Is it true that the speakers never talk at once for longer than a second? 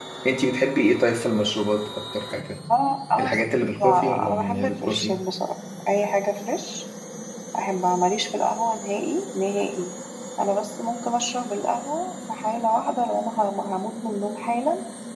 No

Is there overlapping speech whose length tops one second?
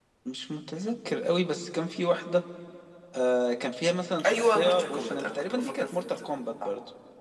Yes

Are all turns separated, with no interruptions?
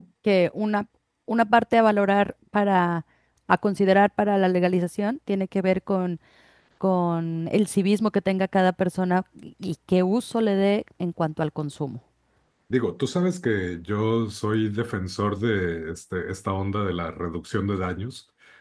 Yes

